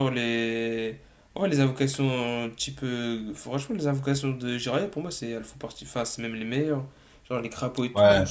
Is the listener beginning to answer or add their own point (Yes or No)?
No